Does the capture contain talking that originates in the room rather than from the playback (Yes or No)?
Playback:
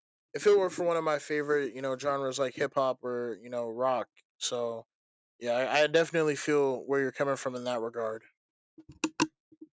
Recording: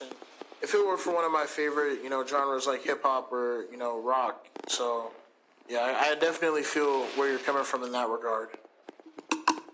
No